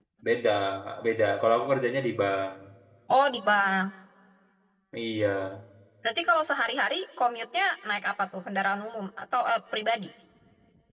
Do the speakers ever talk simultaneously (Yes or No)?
No